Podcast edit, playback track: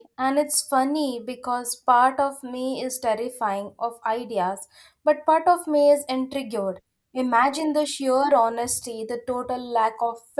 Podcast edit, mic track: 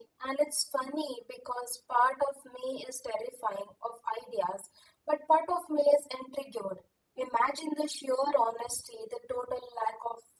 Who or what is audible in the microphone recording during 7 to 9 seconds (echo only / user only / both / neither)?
echo only